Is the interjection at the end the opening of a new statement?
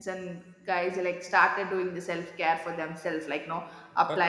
No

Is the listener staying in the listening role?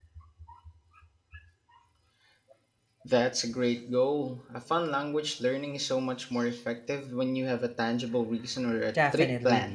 No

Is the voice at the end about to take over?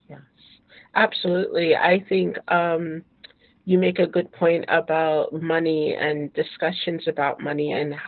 No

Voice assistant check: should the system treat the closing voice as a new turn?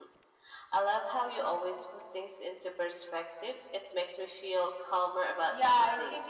Yes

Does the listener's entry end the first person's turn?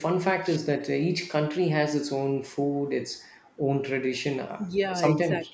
Yes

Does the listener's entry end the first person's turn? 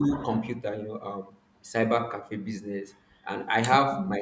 No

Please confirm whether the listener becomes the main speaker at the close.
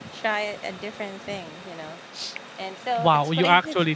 Yes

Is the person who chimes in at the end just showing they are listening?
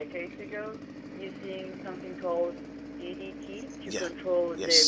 No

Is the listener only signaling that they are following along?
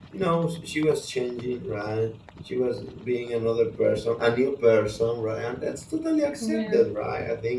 Yes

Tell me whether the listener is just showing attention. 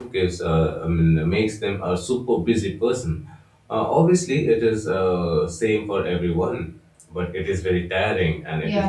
No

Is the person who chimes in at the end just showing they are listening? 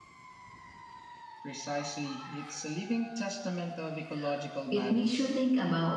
No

